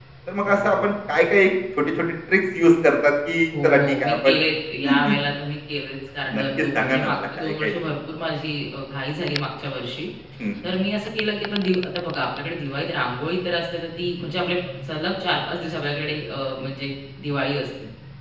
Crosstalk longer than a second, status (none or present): present